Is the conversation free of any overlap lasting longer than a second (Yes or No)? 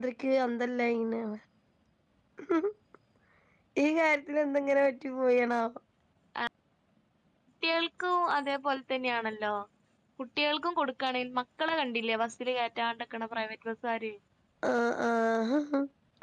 Yes